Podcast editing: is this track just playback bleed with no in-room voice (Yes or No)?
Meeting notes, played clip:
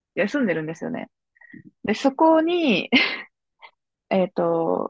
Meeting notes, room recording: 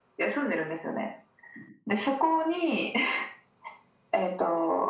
Yes